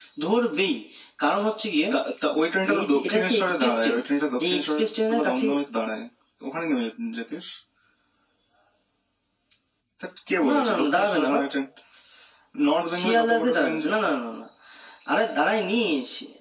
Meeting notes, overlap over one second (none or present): present